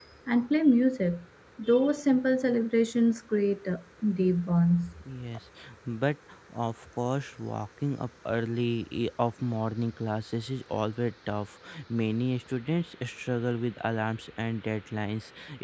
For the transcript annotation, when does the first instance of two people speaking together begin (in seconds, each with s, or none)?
none